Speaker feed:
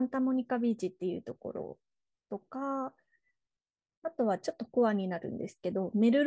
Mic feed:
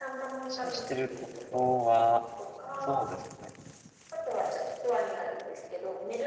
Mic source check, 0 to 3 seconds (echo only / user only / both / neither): both